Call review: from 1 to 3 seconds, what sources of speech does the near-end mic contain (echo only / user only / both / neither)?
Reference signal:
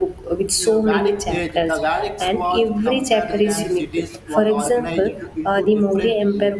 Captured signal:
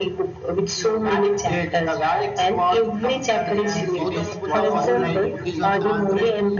echo only